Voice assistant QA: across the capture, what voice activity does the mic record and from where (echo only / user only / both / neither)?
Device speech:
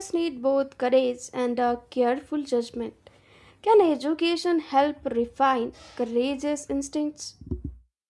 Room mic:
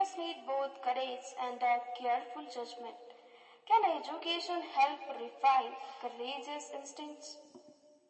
echo only